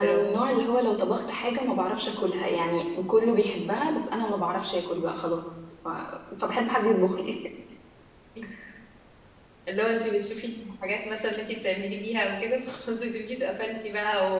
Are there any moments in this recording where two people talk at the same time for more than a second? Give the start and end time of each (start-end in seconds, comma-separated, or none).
none